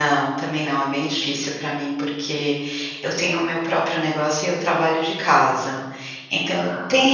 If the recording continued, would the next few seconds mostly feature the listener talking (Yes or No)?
No